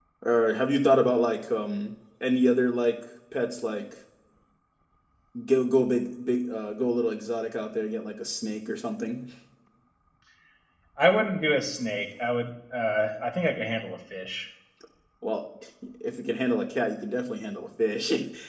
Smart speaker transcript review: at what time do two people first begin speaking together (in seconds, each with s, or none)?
none